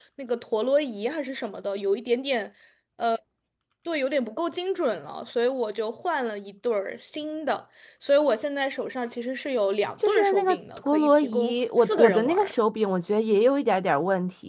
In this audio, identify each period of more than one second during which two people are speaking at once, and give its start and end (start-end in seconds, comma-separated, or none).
10.1-12.5